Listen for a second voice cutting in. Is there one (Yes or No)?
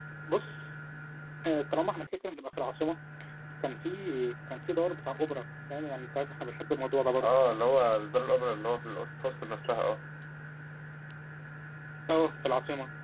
No